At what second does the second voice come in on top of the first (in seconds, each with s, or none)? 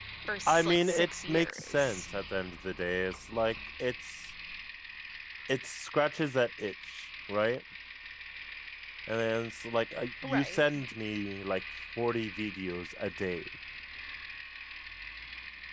0.6 s